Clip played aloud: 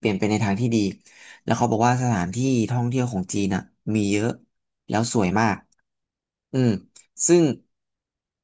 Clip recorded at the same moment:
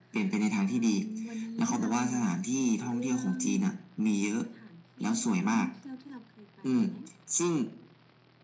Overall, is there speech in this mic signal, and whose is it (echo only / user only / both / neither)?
both